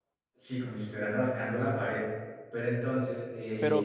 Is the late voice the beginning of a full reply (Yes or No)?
Yes